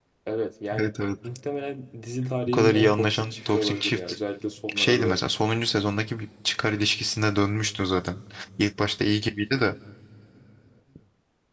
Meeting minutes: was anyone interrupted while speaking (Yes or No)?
Yes